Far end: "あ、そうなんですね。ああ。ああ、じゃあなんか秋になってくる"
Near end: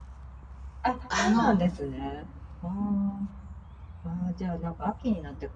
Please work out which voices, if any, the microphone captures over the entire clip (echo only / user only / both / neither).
both